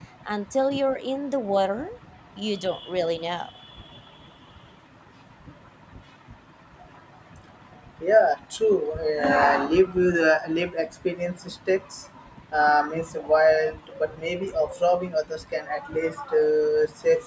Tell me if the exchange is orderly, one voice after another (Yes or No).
Yes